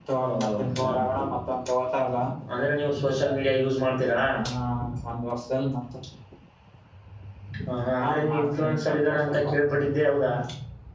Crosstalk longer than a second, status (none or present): present